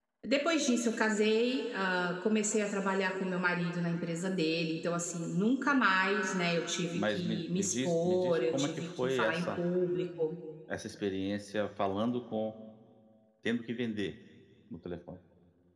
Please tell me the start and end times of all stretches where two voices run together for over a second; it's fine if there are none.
6.9-9.5

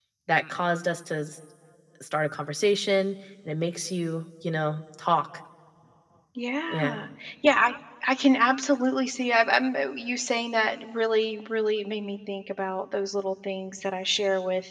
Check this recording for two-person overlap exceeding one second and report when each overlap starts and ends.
none

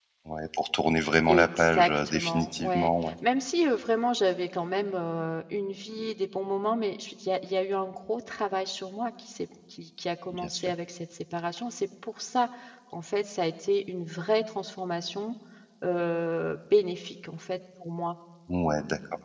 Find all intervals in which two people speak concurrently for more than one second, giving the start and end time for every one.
1.3-3.1

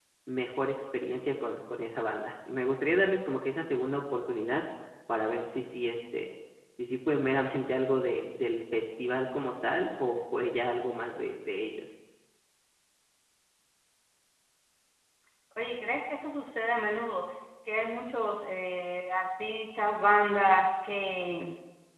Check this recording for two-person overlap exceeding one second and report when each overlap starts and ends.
none

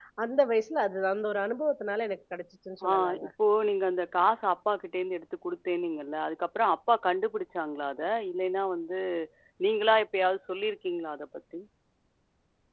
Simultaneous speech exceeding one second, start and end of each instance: none

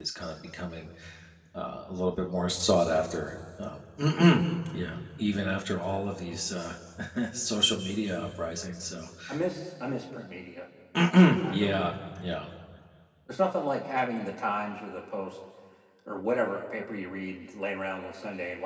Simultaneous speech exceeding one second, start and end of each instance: none

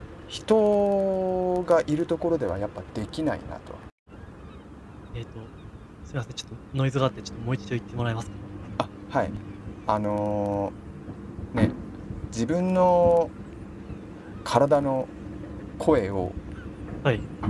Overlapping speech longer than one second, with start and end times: none

